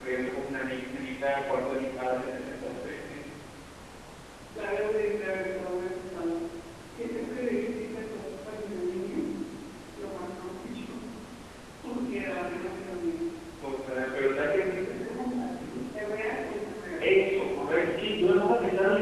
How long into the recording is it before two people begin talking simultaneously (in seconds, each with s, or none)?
none